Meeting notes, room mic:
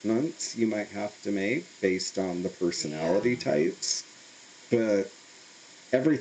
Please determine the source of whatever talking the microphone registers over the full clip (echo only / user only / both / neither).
both